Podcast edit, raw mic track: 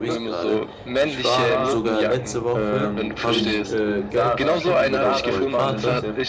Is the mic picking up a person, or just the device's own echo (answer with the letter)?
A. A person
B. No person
A